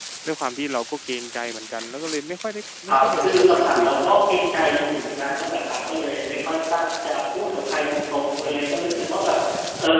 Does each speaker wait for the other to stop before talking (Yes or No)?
No